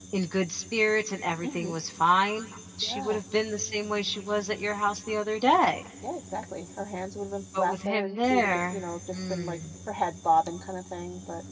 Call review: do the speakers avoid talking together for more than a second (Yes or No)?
No